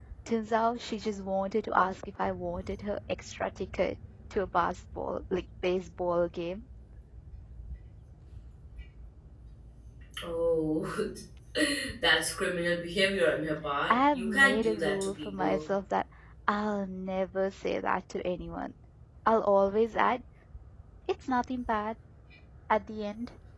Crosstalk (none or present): present